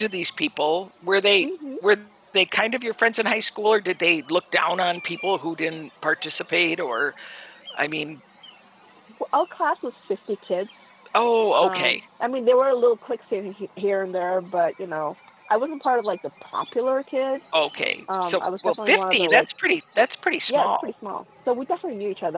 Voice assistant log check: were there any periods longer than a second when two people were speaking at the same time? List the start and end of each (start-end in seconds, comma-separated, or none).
18.2-19.4